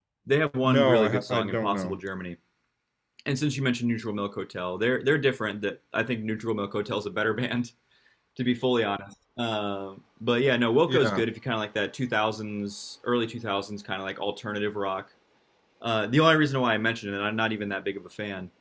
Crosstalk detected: Yes, from 0.6 s

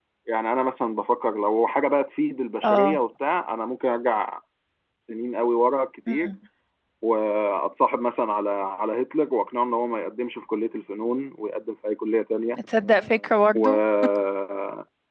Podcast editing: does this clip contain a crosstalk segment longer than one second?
No

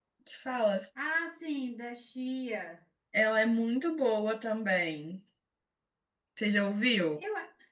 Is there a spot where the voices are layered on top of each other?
No

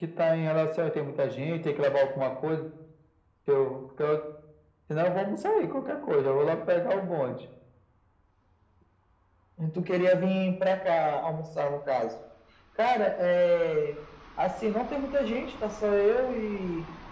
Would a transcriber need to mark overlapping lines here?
No

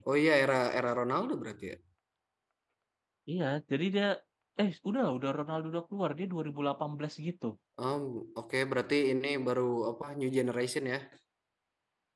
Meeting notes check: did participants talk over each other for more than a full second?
No

